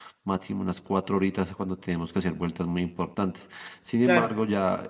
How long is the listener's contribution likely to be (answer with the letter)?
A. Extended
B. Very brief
B